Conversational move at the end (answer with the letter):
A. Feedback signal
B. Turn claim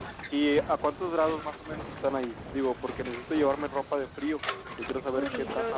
B